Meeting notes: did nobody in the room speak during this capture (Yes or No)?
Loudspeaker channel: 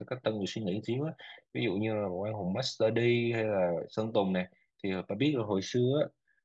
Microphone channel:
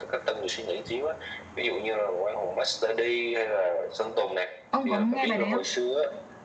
No